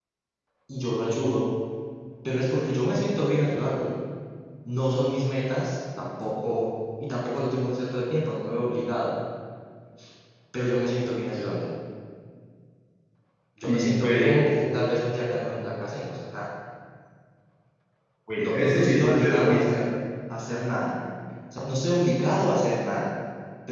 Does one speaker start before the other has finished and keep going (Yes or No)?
Yes